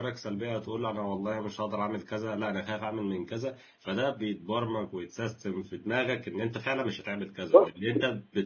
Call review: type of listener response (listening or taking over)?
listening